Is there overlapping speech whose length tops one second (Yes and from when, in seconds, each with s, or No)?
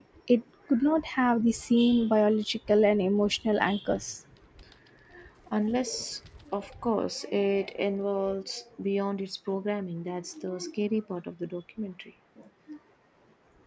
No